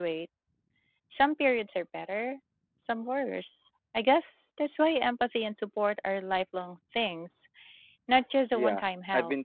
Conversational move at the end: taking over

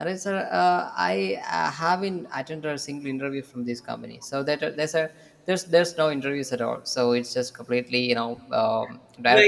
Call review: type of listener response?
taking over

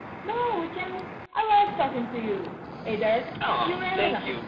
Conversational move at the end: taking over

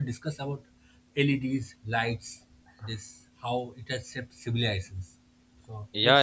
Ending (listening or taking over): taking over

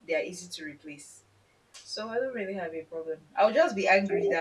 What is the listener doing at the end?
listening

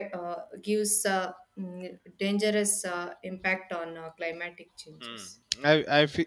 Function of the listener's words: taking over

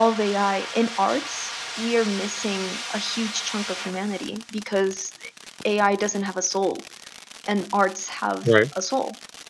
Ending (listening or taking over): listening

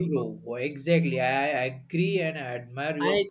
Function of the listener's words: taking over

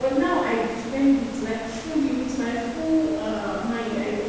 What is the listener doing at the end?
listening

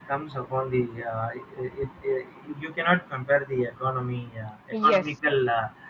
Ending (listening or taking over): listening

